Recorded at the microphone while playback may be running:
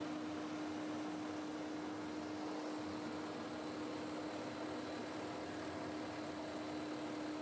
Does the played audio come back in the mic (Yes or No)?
No